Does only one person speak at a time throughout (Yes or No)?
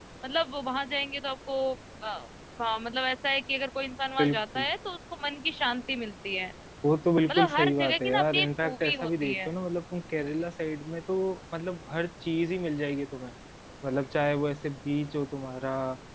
No